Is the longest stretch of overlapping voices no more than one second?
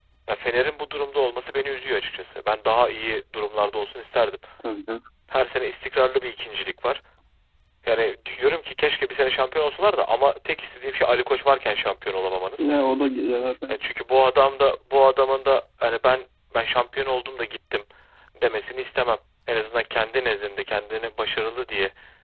Yes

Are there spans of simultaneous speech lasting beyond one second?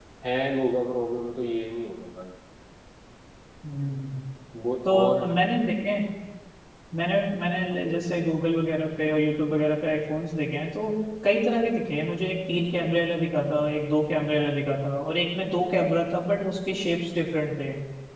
No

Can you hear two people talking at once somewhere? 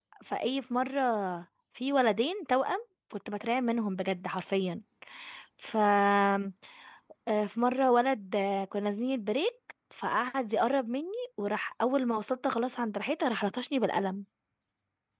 No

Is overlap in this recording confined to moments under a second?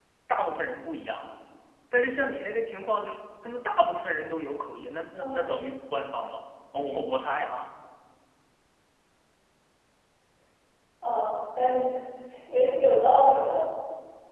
Yes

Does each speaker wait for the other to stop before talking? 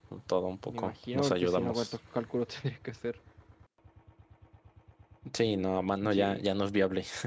No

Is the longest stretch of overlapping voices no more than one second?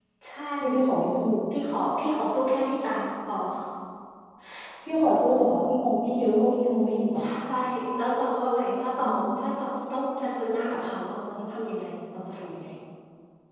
Yes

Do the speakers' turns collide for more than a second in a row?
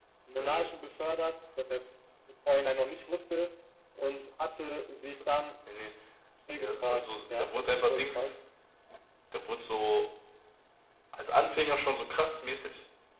Yes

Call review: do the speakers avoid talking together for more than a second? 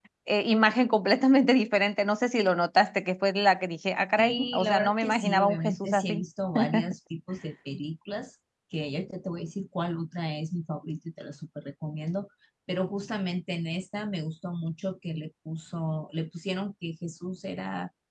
No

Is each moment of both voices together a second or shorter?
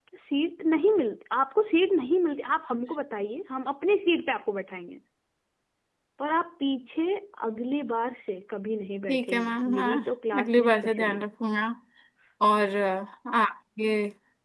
No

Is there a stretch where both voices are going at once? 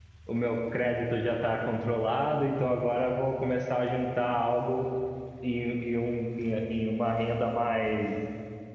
No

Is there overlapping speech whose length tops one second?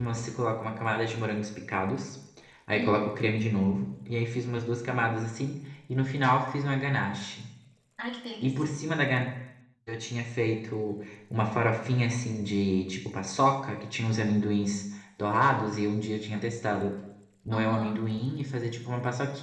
No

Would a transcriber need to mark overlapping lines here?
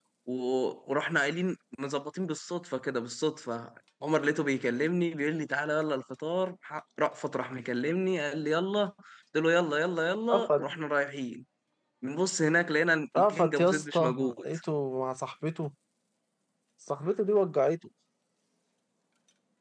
Yes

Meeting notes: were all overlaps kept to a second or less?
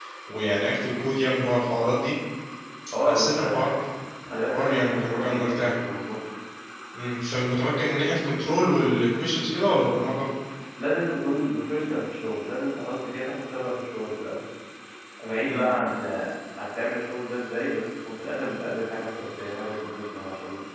No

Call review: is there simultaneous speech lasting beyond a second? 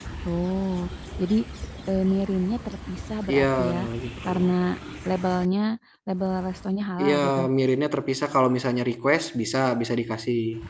No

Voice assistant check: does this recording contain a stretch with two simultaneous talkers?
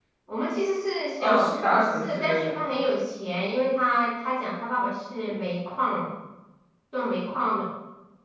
Yes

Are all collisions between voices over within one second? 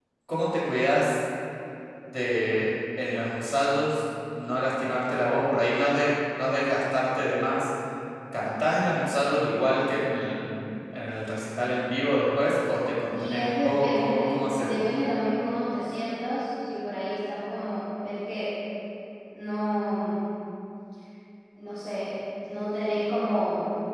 No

